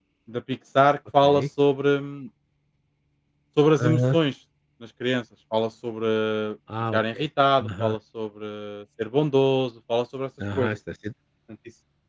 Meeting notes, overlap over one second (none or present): none